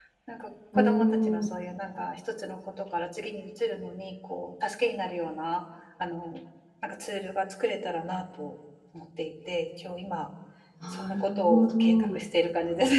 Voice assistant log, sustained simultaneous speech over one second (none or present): present